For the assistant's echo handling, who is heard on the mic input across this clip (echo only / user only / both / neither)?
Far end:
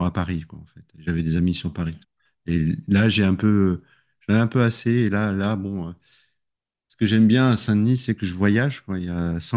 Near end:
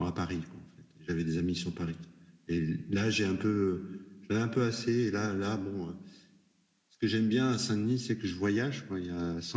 echo only